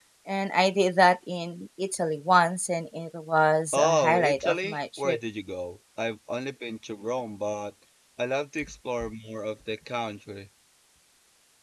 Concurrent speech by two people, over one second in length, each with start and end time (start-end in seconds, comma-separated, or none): 3.7-5.2